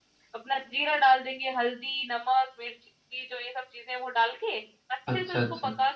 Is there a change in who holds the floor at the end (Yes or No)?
No